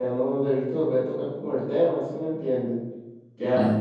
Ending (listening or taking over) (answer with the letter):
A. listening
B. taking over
B